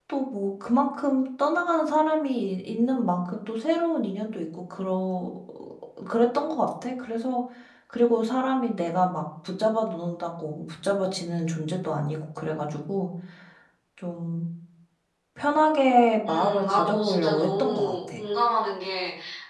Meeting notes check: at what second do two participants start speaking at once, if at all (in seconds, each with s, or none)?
16.3 s